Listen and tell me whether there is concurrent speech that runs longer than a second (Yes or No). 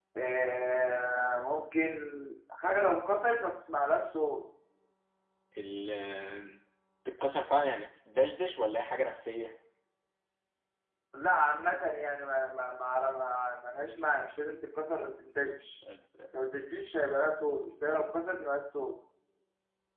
No